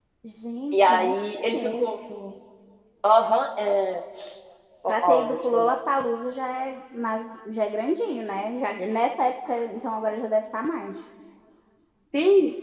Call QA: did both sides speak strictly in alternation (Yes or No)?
No